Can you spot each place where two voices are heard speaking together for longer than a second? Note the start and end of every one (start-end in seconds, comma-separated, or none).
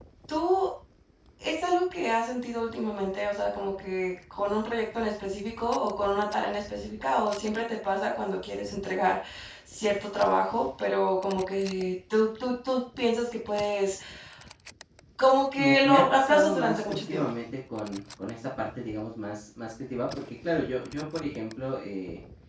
15.6-17.3